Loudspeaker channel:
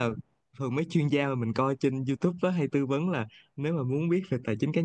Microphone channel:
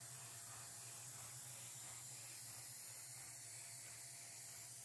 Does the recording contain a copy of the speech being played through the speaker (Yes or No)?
No